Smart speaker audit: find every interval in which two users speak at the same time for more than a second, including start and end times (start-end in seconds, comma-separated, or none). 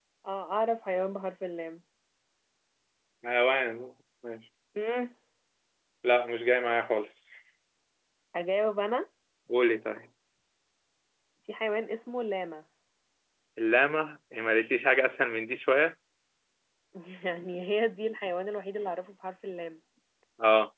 none